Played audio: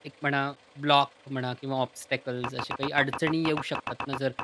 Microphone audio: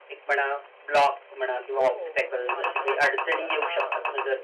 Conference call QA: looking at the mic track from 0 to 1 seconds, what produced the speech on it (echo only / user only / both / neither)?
echo only